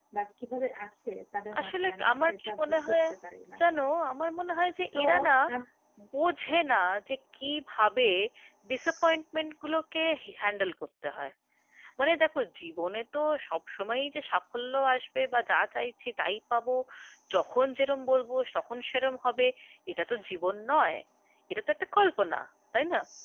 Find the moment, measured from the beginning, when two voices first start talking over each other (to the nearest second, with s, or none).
2 s